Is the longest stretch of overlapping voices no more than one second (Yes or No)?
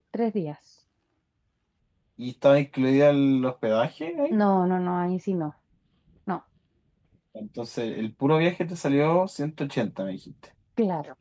Yes